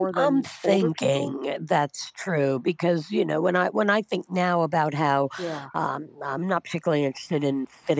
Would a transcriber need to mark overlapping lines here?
Yes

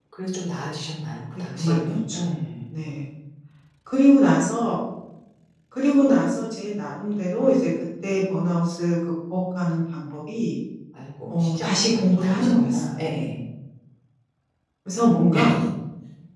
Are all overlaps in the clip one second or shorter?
No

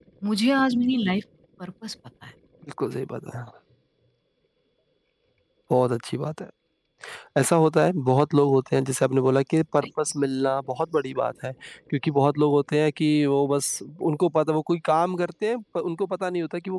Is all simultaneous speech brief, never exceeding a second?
Yes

